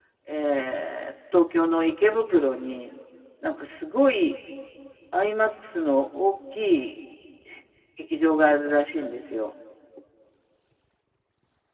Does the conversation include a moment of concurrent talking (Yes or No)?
No